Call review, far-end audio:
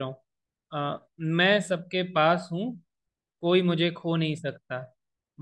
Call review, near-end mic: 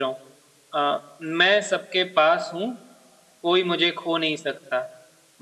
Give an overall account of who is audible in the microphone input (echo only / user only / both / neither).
echo only